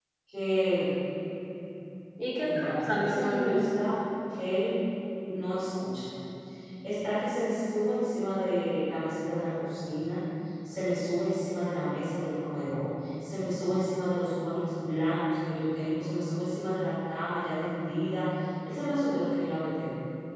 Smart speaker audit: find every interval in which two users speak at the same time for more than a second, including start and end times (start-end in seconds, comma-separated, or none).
2.4-3.7